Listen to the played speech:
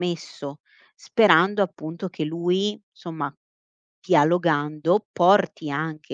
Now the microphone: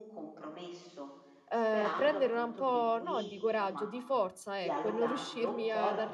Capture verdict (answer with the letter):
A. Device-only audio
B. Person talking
B